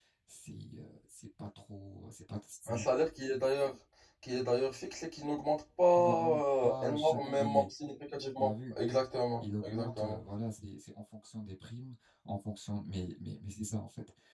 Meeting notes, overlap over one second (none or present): present